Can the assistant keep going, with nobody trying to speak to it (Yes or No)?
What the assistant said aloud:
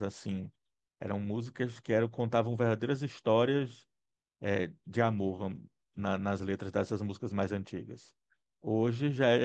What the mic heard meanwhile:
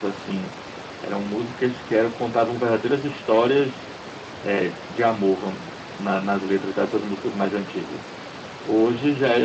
Yes